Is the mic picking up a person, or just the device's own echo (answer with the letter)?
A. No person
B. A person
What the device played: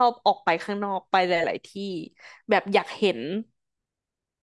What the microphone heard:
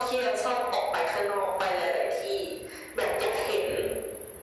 A